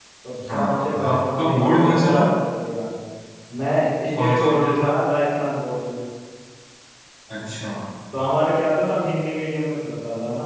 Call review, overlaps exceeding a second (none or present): present